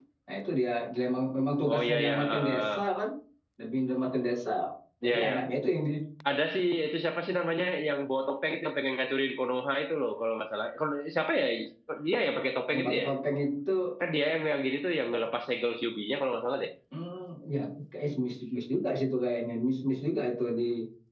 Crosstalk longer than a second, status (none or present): present